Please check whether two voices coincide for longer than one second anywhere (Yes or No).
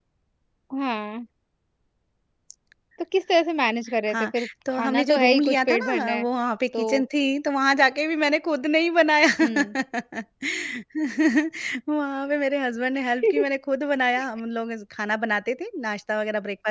Yes